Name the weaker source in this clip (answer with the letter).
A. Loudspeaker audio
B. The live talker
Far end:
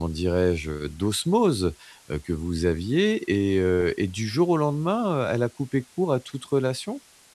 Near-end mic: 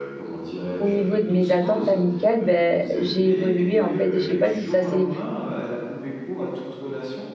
A